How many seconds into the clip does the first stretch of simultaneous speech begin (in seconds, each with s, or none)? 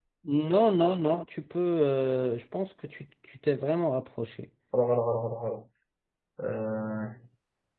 none